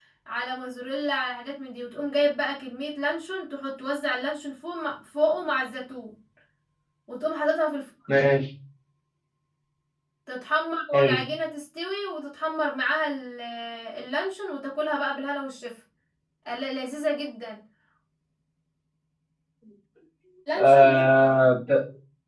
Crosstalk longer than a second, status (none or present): none